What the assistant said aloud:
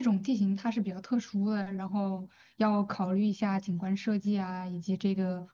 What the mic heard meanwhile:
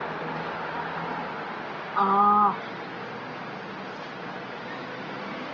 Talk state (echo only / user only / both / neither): user only